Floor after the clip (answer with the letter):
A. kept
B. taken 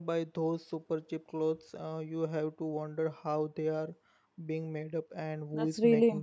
B